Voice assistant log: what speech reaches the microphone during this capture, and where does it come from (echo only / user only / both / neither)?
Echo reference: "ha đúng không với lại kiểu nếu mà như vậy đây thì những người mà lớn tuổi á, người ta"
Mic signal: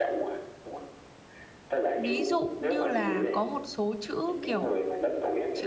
both